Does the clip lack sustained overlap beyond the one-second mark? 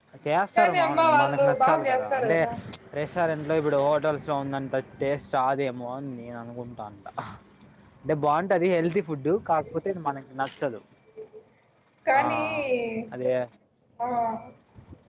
No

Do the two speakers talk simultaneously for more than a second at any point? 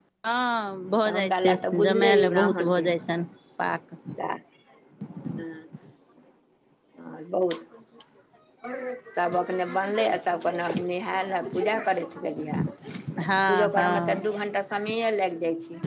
Yes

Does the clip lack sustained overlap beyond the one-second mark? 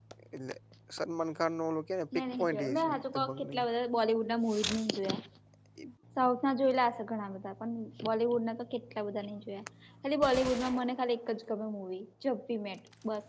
No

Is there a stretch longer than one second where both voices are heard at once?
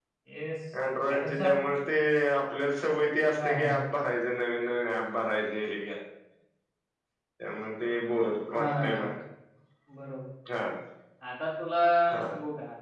No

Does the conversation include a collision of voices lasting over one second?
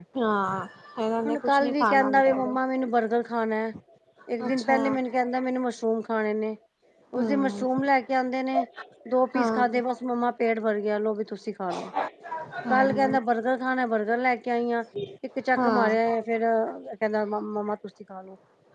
Yes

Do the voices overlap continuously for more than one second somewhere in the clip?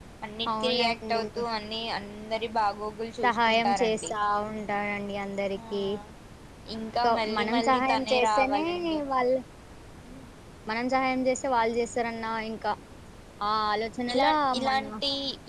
Yes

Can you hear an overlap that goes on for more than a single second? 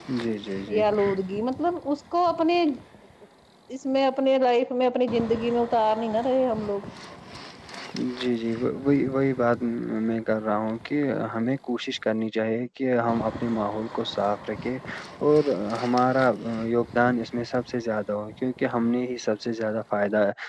No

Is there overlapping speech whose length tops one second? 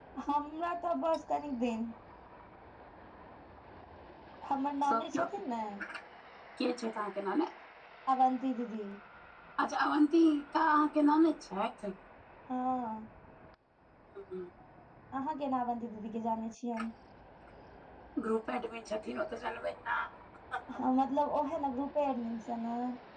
No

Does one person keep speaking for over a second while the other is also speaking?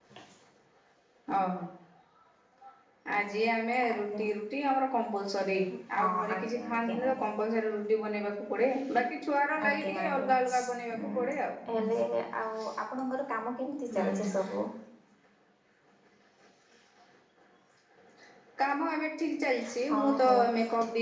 Yes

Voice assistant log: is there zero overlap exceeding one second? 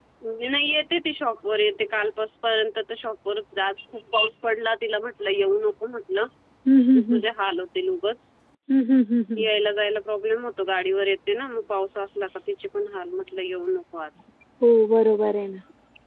Yes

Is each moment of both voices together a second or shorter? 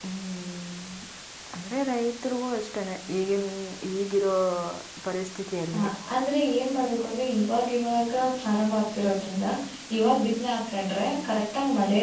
Yes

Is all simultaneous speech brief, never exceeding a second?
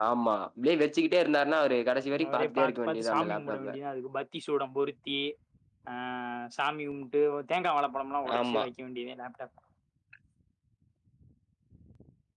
No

